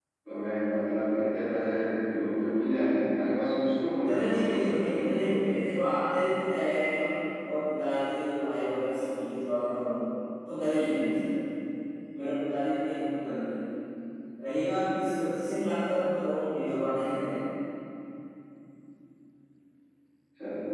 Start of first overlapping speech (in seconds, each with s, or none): 3.8 s